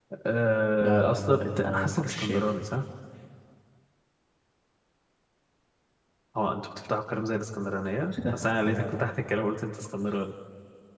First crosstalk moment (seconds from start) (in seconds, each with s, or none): 0.8 s